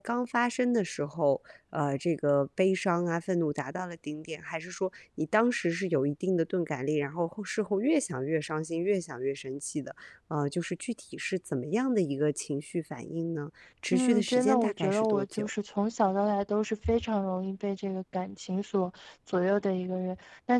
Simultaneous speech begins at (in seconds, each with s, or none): 13.9 s